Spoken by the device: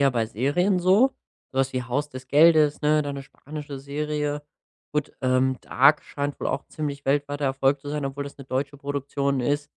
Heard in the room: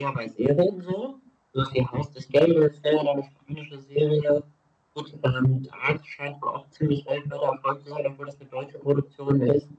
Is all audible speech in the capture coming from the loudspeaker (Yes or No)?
Yes